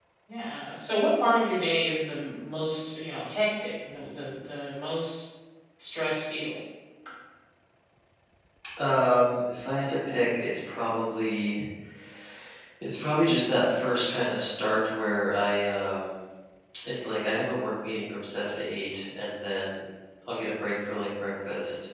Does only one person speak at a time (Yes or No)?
Yes